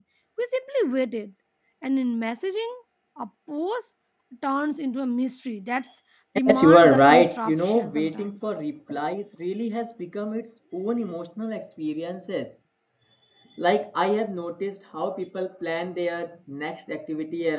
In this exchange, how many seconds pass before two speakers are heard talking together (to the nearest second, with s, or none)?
6 s